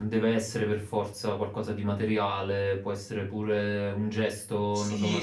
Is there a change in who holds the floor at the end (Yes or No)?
Yes